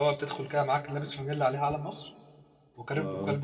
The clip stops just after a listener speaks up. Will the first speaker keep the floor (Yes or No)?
Yes